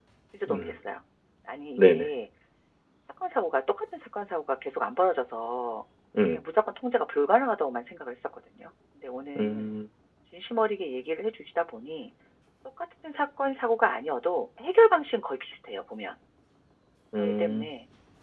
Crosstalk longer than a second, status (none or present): none